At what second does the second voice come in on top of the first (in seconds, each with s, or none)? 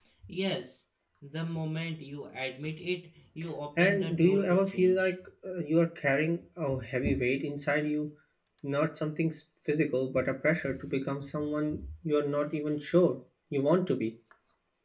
3.8 s